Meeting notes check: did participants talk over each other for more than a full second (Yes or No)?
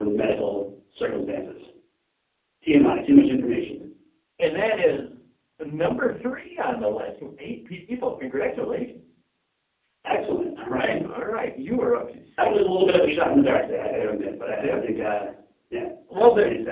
No